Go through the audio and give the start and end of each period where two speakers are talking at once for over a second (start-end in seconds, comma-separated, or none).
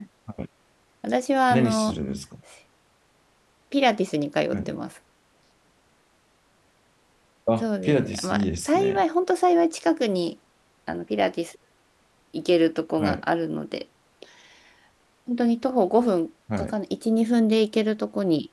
7.6-9.0